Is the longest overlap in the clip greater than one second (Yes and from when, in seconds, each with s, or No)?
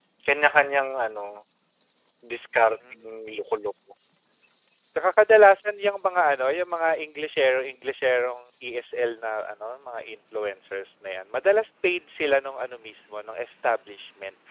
No